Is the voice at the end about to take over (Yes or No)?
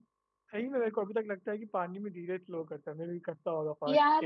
Yes